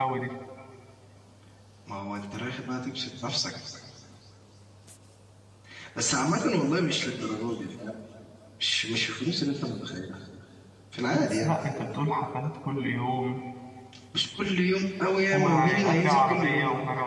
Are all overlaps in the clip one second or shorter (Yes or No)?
No